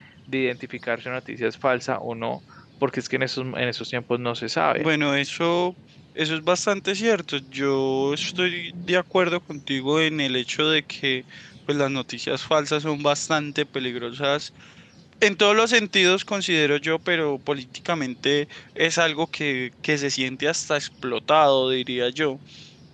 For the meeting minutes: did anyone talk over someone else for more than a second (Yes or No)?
No